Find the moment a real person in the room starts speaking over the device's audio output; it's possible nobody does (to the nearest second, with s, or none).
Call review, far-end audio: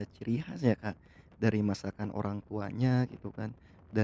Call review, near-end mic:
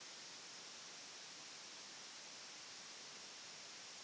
none